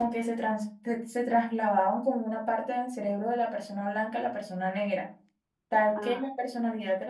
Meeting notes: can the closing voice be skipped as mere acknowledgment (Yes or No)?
Yes